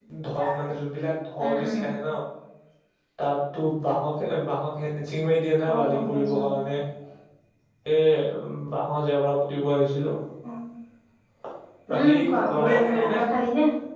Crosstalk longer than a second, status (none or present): present